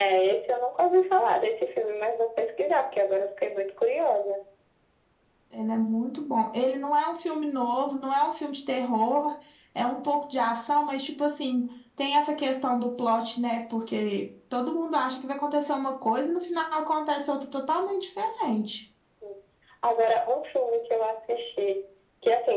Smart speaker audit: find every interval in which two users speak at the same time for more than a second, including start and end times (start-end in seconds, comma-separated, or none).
none